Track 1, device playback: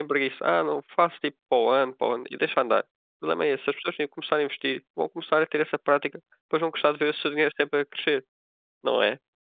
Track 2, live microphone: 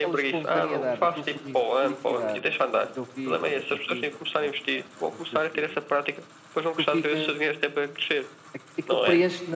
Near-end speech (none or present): present